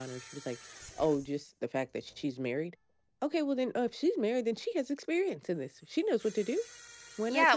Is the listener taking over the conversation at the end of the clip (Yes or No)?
Yes